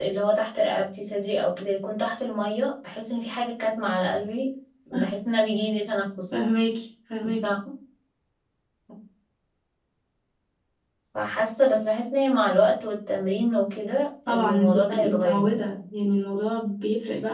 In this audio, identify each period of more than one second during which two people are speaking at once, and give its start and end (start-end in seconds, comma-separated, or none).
14.3-15.6